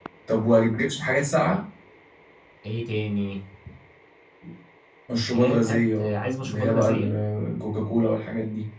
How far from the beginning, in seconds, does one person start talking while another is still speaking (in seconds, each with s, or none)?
5.3 s